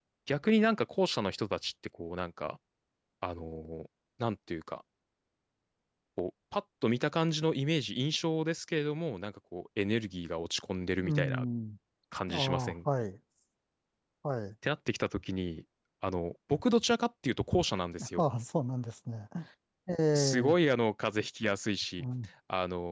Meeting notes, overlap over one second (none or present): none